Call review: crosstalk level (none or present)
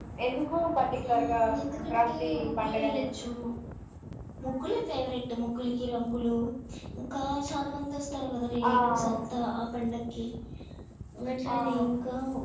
present